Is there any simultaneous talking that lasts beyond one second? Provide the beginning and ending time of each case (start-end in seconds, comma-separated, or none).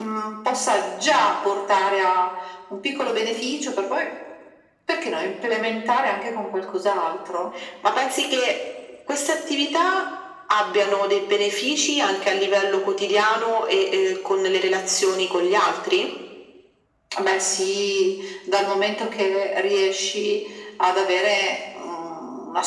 none